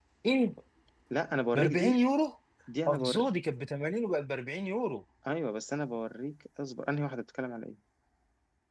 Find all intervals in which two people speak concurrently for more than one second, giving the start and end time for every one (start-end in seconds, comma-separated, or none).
none